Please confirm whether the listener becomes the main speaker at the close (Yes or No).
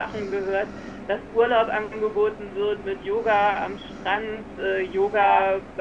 No